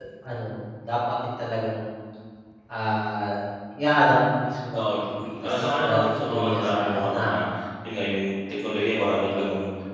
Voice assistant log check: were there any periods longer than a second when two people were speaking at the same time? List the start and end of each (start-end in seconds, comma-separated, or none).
5.4-7.4